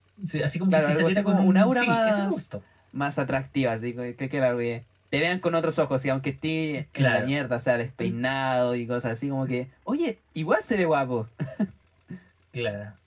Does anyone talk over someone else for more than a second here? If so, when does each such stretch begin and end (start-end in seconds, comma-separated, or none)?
0.7-2.4